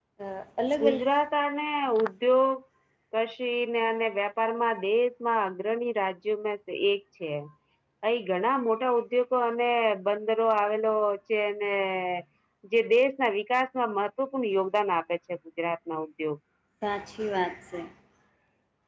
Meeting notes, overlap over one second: none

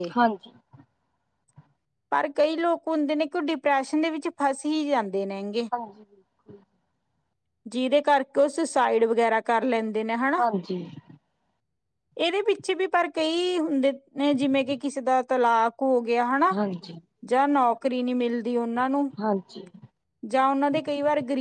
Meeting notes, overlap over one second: none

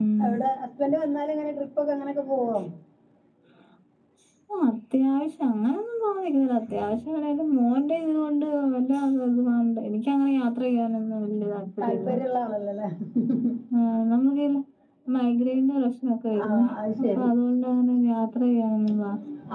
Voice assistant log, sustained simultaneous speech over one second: none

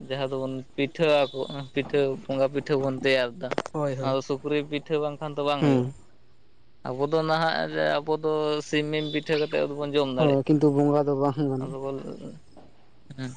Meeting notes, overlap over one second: none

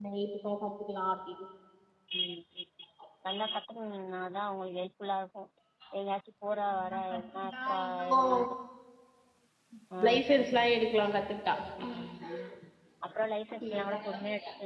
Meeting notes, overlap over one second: present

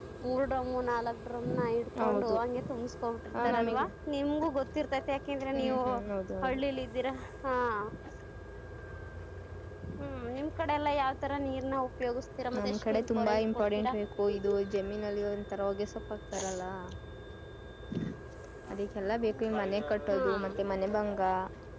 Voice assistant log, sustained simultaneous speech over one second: present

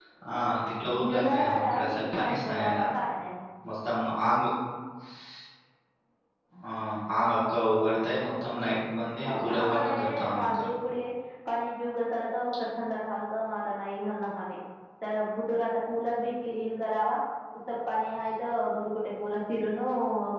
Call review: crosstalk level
present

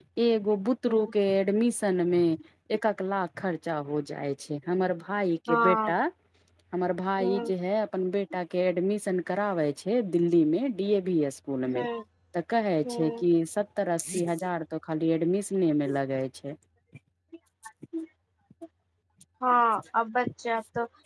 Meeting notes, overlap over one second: none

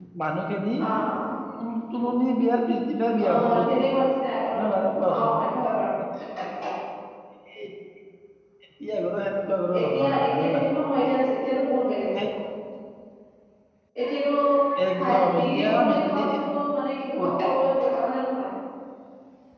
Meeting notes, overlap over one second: present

